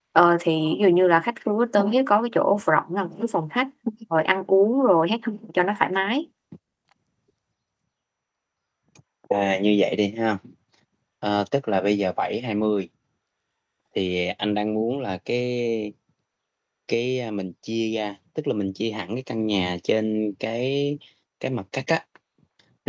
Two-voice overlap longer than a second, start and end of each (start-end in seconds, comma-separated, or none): none